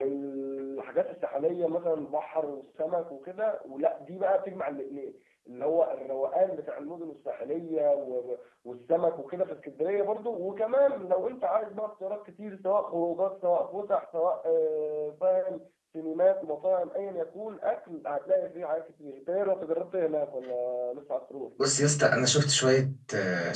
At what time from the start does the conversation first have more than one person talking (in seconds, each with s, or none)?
none